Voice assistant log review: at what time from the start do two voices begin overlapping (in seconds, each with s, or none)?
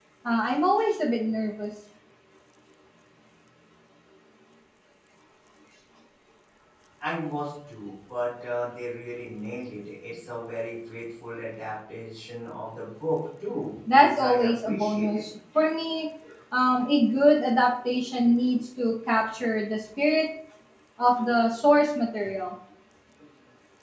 13.9 s